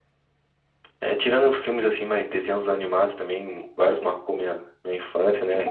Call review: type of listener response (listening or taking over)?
taking over